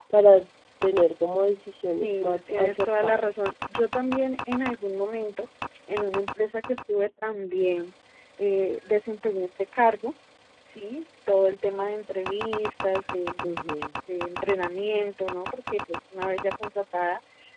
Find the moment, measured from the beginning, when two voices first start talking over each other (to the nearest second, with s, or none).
2 s